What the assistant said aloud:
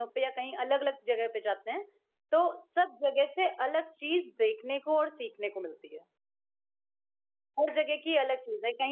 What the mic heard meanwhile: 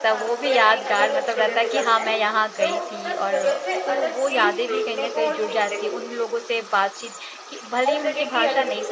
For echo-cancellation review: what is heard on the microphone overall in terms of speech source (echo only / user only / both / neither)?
both